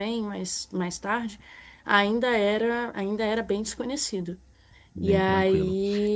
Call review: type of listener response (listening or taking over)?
taking over